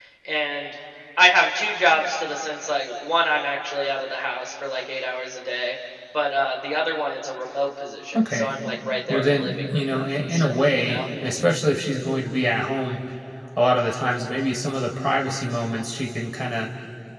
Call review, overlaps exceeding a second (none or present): present